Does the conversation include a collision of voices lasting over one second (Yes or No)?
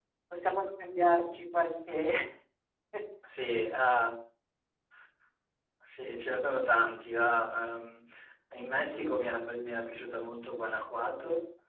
No